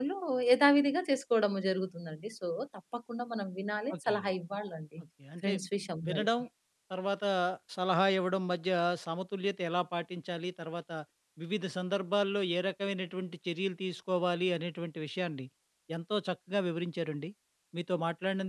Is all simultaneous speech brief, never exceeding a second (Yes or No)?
Yes